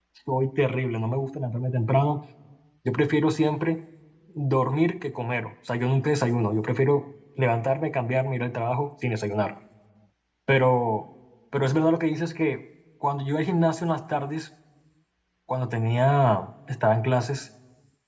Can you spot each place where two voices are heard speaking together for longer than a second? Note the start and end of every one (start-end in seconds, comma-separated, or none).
none